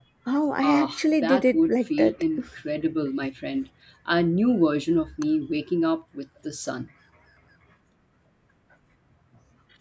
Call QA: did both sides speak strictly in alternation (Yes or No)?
No